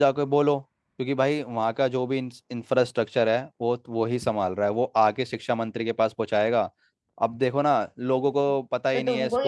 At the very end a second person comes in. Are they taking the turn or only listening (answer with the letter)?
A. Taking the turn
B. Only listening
A